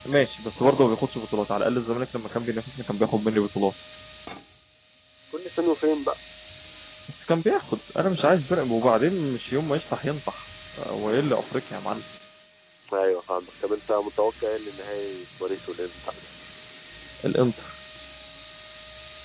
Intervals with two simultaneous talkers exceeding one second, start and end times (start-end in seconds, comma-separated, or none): none